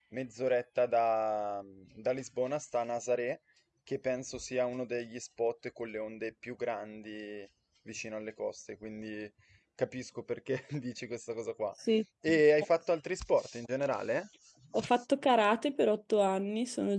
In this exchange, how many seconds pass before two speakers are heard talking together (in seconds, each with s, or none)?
none